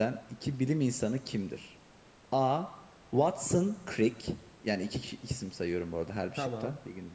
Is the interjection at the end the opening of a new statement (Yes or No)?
No